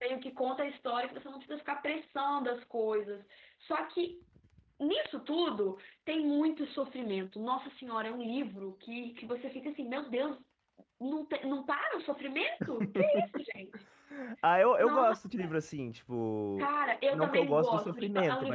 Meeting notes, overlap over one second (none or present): present